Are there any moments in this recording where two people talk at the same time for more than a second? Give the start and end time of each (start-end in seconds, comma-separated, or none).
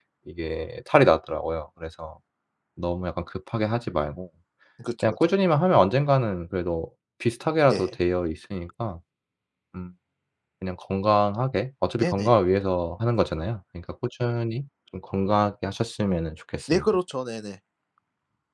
none